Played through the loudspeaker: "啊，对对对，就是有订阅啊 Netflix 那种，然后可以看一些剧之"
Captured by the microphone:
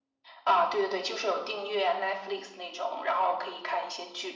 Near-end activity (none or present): none